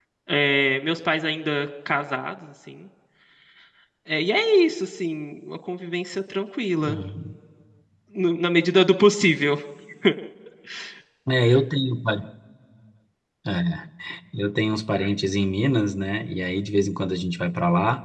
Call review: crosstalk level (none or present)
none